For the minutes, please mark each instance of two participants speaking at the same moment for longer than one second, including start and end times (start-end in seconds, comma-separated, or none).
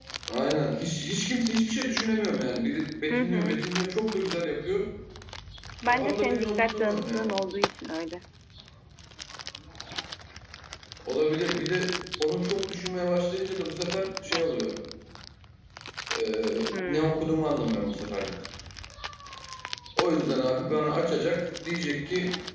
5.9-7.4